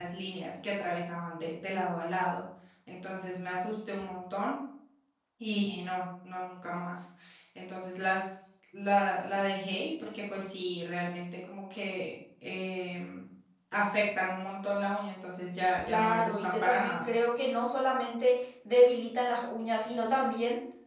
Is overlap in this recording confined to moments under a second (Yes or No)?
No